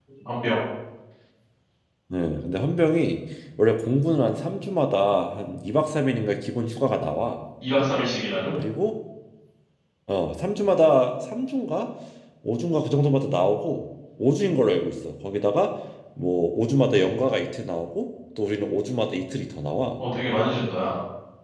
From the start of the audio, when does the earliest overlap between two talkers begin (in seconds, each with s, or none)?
none